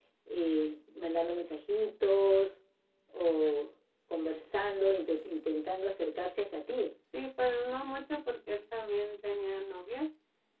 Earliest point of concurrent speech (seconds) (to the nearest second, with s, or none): none